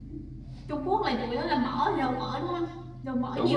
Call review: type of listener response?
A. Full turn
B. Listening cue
A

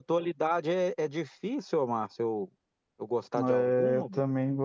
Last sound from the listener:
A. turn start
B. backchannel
A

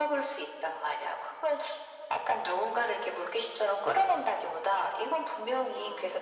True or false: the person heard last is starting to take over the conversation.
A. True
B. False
B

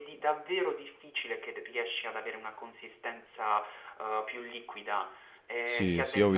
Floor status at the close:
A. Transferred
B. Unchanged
A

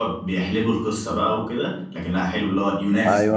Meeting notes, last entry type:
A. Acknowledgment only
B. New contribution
B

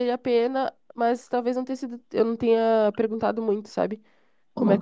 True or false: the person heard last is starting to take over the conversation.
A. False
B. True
B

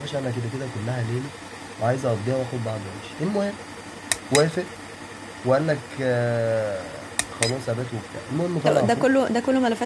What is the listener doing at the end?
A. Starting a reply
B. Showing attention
A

